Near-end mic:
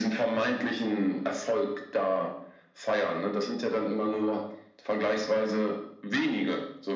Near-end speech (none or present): none